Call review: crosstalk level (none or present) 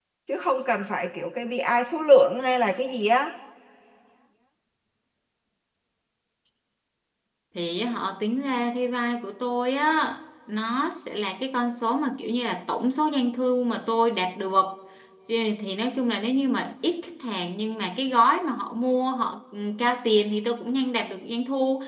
none